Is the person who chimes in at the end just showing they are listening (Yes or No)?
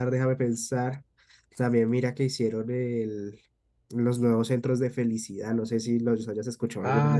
No